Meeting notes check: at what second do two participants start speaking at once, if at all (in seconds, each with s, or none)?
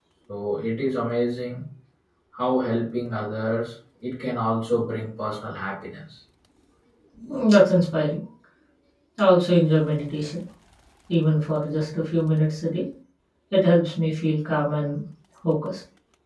none